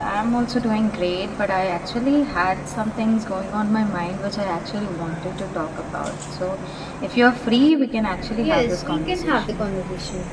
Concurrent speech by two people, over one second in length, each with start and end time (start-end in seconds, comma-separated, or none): 8.3-9.6